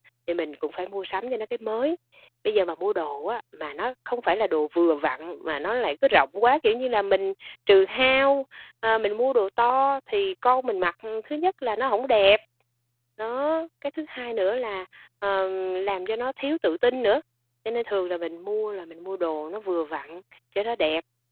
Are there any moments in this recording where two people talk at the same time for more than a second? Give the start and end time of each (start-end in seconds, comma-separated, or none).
none